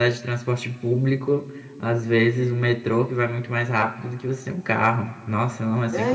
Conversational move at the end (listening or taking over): taking over